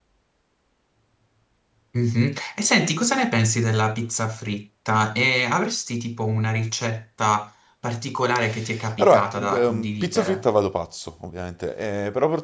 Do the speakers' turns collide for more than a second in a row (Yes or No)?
Yes